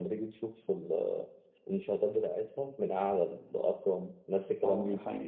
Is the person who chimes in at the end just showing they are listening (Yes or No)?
No